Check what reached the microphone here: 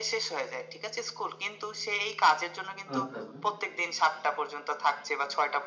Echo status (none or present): present